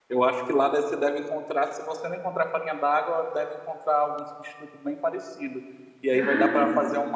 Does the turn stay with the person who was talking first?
Yes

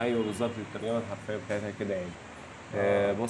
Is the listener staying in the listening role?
Yes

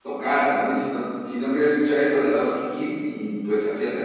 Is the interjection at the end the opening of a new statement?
No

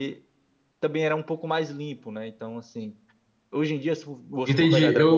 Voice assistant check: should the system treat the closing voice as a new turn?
Yes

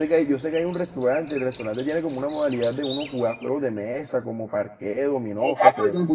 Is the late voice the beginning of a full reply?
Yes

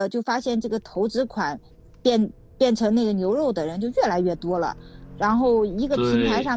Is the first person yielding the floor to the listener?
No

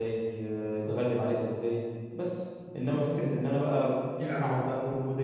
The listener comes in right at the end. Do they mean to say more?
No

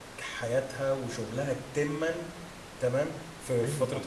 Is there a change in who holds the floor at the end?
No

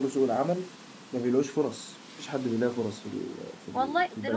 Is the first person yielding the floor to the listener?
Yes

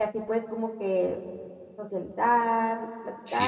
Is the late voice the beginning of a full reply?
No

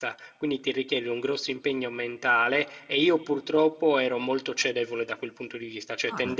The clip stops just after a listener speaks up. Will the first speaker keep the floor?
Yes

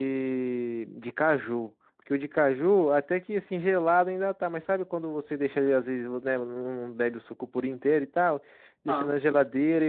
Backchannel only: Yes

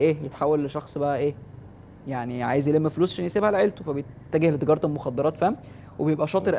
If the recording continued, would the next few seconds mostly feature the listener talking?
No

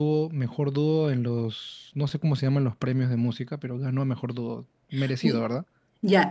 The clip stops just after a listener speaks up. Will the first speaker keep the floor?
No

